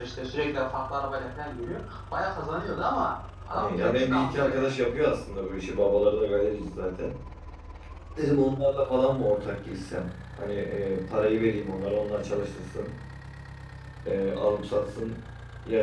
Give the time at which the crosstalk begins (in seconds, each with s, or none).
3.5 s